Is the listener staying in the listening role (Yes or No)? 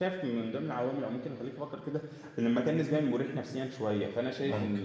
Yes